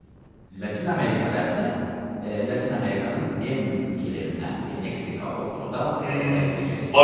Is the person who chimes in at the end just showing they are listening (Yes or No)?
No